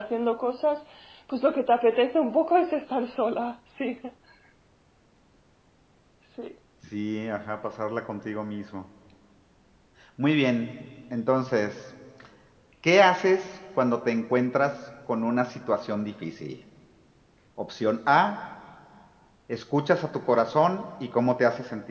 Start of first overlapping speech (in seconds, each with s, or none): none